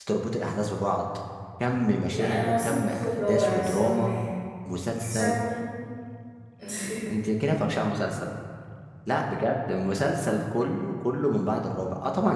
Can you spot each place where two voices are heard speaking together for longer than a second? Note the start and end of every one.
2.1-4.1

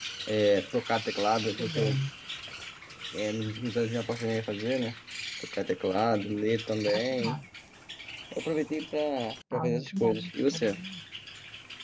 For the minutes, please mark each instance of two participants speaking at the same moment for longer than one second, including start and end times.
9.5-10.8

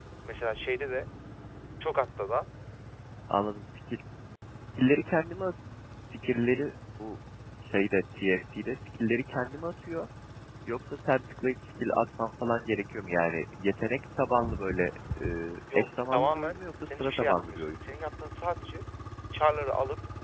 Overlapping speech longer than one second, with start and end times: 15.8-17.8

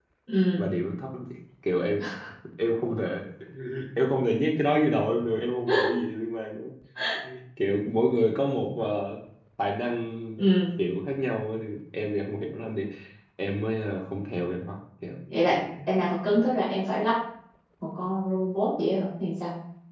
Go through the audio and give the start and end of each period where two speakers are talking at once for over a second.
none

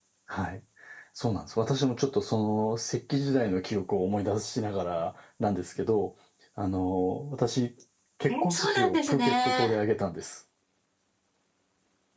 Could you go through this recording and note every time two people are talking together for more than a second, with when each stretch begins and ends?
8.3-9.8

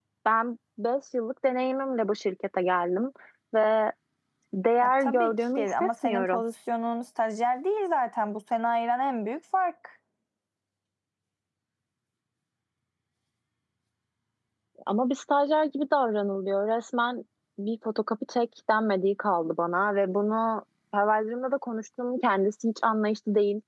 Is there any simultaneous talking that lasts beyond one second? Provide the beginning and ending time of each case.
4.8-6.4

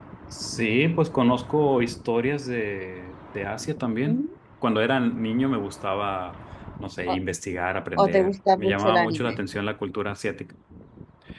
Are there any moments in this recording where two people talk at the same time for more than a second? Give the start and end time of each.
8.0-9.4

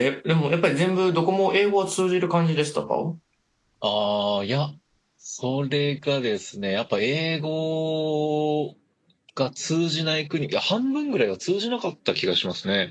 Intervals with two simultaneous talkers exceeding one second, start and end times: none

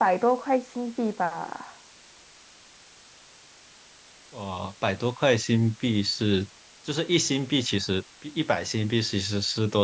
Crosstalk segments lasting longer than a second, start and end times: none

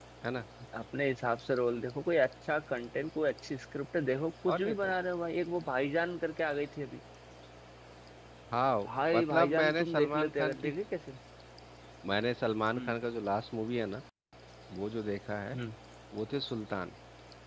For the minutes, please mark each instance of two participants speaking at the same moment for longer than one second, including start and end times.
8.8-10.7

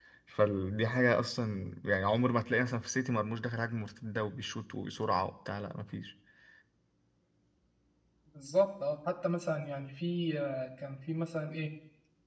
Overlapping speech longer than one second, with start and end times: none

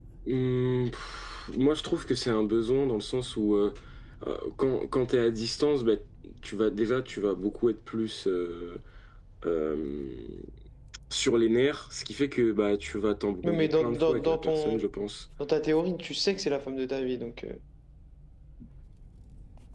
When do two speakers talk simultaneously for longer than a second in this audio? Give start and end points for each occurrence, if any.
13.4-14.8

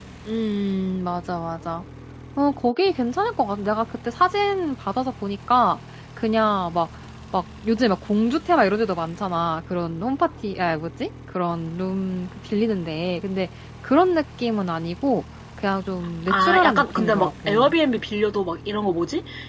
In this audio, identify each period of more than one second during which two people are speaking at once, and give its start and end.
16.3-17.7

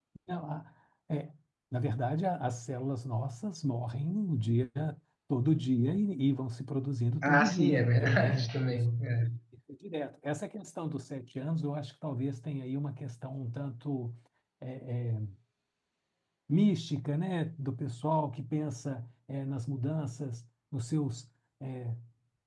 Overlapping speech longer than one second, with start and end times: 7.2-8.8

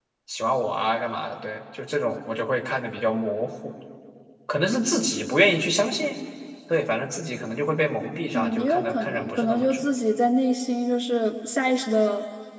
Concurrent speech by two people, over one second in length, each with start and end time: 8.3-9.8

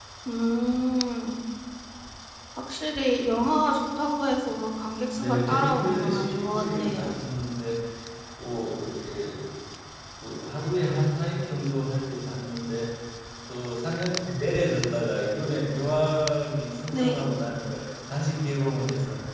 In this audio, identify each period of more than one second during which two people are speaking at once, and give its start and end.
5.2-7.1

